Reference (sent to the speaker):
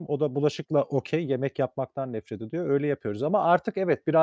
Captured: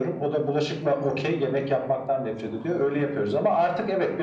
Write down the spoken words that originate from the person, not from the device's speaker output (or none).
none